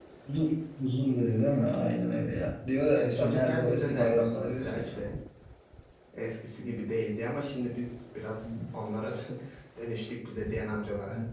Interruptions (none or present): present